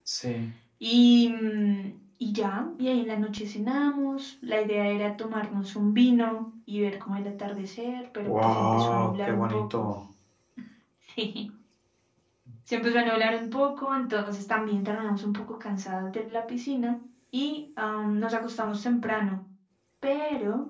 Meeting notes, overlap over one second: present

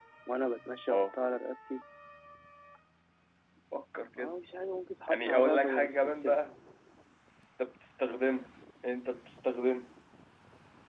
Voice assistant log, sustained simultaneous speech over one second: present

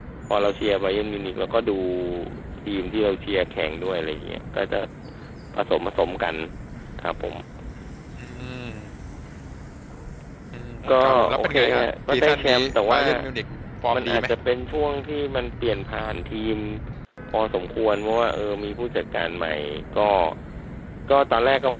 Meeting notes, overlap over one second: present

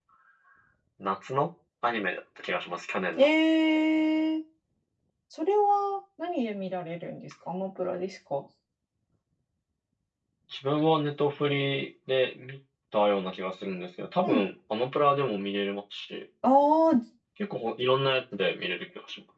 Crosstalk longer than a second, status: none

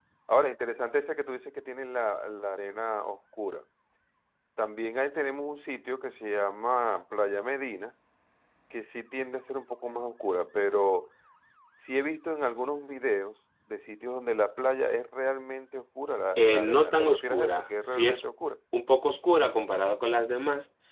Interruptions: present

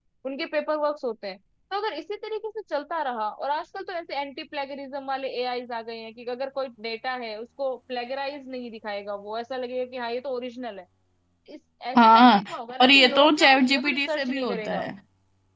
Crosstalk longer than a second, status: present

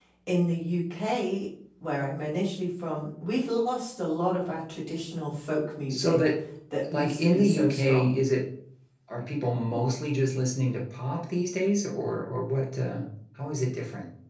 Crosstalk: present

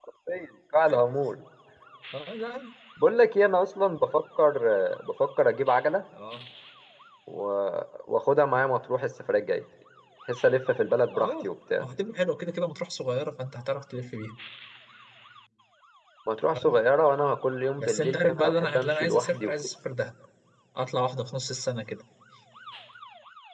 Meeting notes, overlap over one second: present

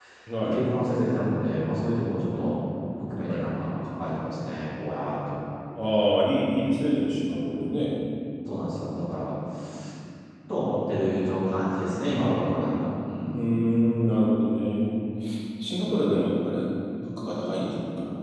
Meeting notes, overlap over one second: none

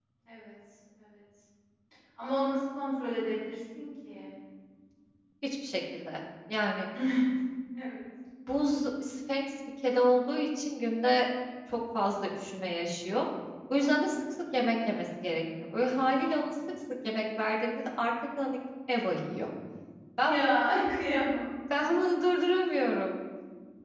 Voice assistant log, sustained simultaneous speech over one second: none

